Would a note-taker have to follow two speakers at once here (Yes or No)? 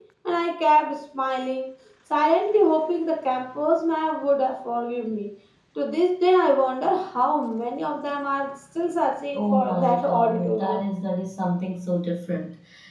Yes